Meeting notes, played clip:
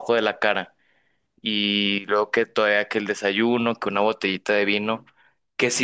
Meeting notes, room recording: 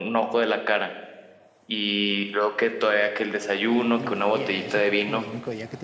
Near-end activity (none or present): present